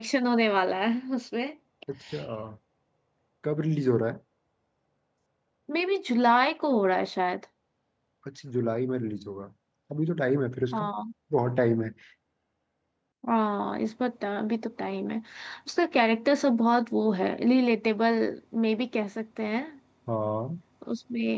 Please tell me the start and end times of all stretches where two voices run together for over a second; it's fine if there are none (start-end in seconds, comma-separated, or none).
none